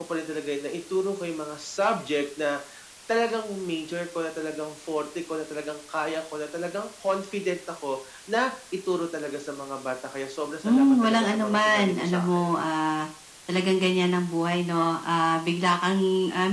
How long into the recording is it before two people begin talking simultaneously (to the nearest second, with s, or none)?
11 s